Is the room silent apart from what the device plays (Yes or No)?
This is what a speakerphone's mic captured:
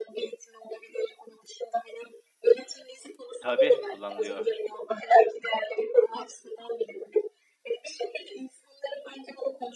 No